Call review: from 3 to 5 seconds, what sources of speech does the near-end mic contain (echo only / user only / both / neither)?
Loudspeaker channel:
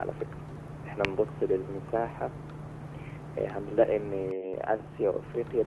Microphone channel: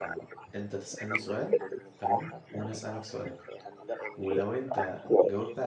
both